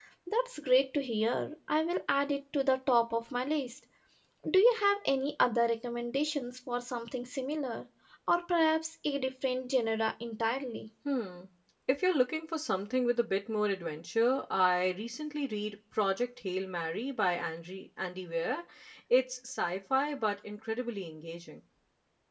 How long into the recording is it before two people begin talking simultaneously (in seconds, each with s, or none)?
none